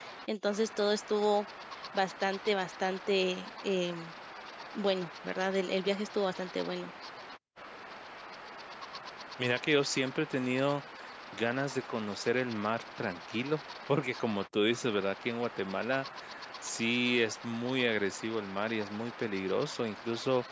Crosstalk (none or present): none